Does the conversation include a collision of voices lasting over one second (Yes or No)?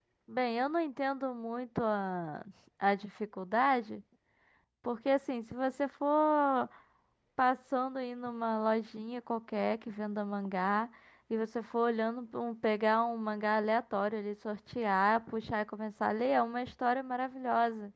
No